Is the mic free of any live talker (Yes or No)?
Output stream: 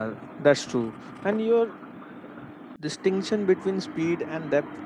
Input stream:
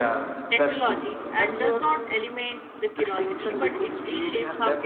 No